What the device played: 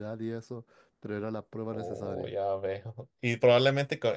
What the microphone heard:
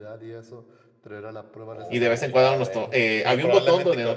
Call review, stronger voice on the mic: user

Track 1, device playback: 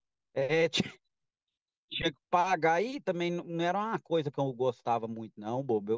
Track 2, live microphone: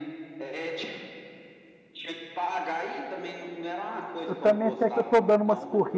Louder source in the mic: user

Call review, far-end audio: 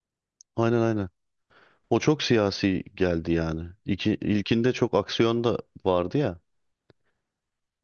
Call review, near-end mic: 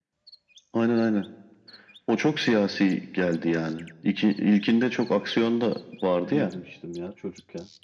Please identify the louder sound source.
echo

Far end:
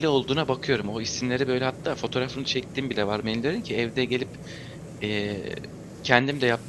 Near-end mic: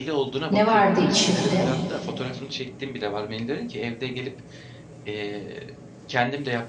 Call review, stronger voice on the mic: user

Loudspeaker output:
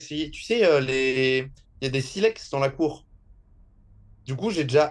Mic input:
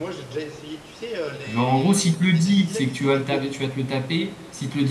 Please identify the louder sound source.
user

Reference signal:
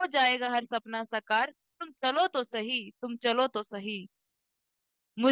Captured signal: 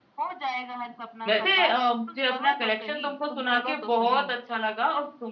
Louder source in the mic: user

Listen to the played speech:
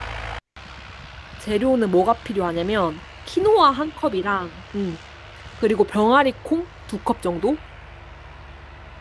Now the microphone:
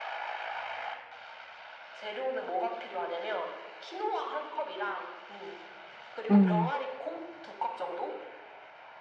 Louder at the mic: user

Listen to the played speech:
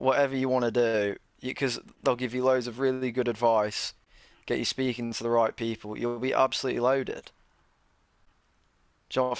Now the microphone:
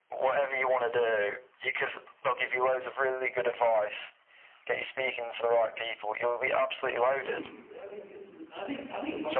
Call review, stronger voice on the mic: echo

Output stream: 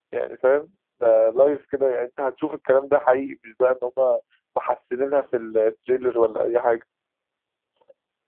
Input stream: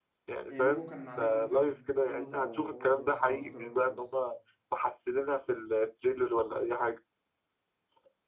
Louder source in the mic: echo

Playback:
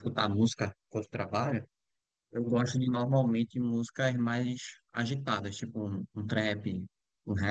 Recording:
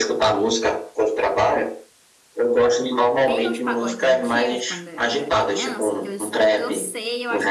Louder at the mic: echo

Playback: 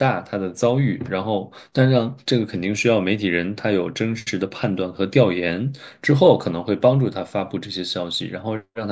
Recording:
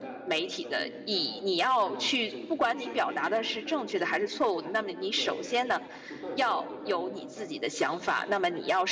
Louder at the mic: user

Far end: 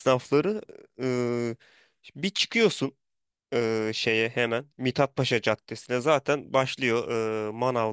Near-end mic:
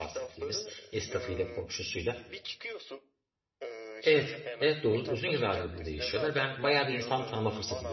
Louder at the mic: user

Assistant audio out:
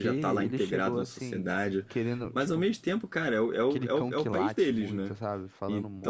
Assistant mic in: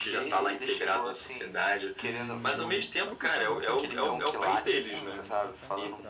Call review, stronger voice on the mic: echo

